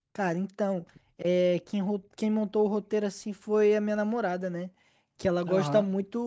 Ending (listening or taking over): listening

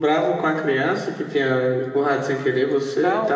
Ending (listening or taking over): taking over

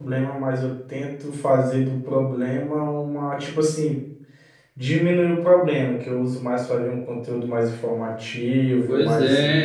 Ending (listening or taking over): taking over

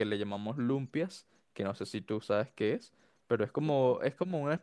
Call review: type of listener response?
listening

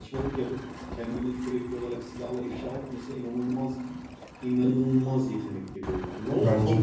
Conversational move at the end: taking over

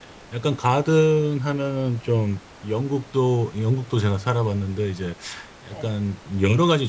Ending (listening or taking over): listening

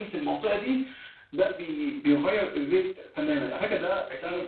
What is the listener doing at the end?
listening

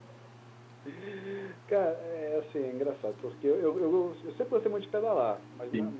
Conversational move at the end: listening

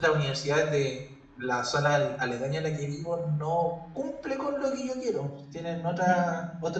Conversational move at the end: listening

